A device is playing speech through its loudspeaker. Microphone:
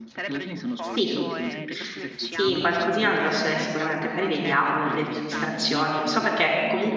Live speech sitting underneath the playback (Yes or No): No